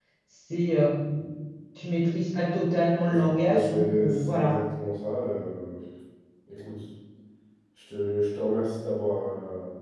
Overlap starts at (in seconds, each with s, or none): 3.1 s